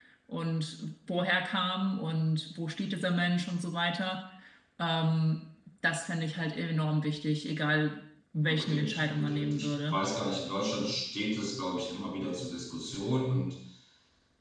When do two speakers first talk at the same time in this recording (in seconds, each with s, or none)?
8.5 s